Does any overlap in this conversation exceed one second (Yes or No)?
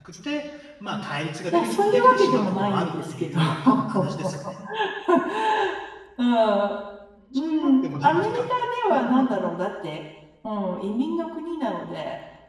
Yes